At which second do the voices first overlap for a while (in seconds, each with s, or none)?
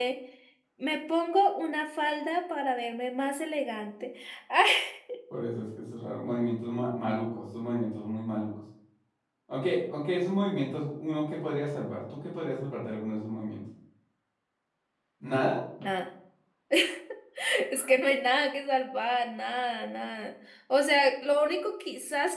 none